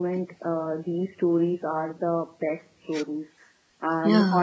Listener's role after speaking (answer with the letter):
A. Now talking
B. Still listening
B